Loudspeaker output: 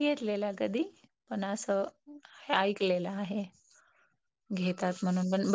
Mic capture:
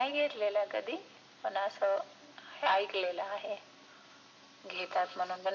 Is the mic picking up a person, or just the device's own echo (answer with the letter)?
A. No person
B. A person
A